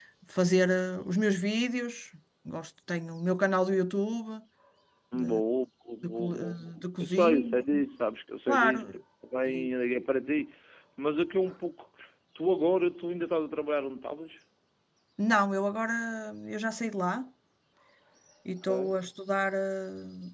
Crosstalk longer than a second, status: present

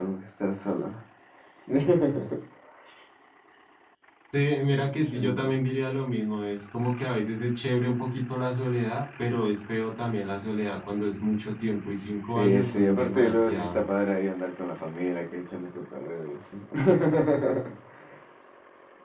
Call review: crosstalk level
present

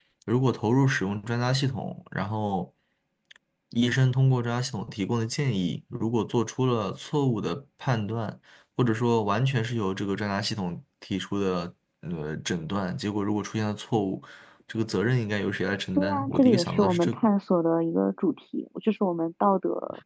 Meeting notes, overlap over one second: present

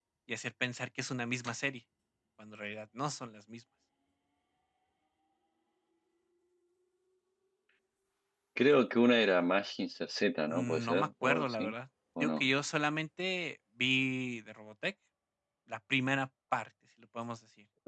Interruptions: present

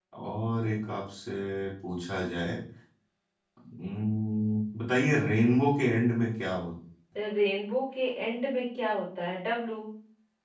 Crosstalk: none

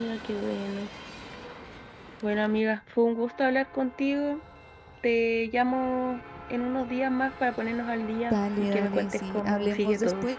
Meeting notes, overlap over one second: present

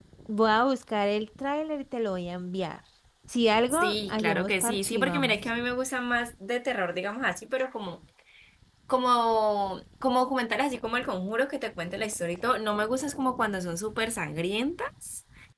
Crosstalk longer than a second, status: present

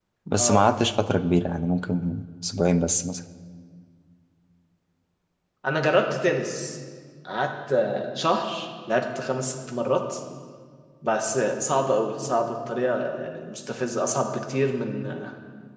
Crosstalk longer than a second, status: none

